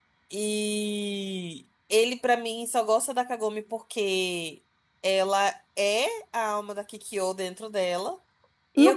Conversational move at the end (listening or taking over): taking over